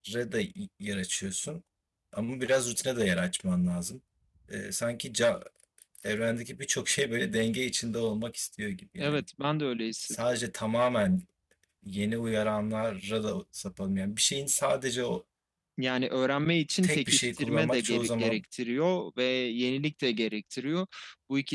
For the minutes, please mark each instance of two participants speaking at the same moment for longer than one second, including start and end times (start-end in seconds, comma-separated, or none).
16.8-18.4